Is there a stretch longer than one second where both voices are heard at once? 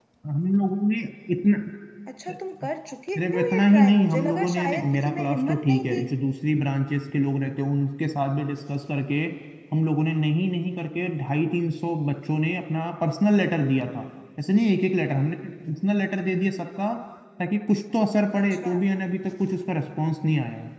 Yes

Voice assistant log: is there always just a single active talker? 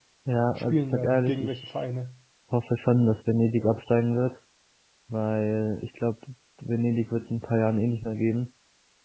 No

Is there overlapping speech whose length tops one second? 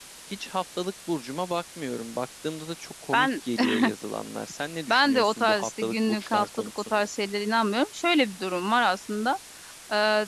Yes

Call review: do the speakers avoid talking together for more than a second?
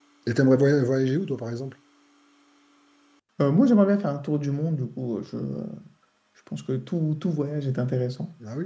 Yes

